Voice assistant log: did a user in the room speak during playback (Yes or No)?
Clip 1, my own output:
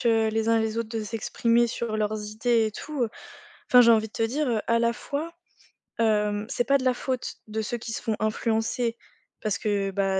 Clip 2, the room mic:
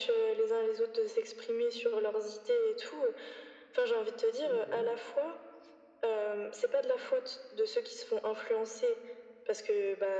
Yes